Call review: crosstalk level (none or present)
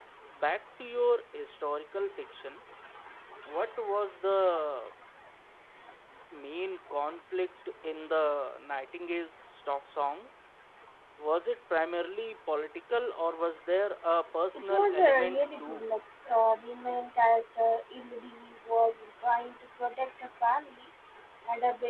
present